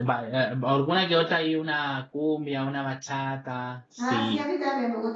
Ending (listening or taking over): taking over